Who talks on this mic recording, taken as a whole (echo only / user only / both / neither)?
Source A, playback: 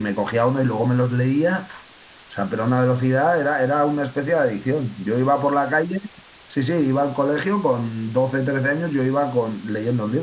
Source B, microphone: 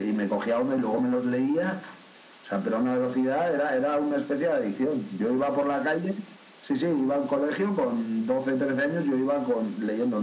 echo only